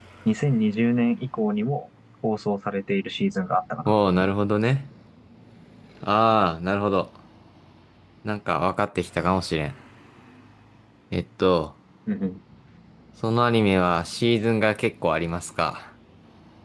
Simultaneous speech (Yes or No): No